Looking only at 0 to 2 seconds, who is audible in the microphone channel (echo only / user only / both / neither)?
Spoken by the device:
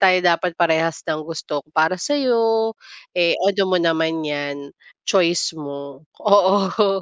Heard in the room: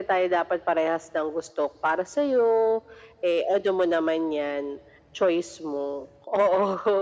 echo only